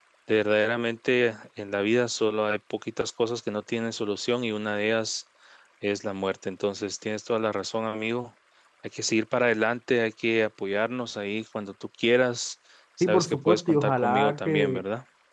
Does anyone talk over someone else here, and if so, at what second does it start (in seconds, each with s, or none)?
13.0 s